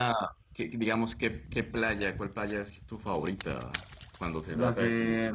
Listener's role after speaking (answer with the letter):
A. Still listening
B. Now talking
B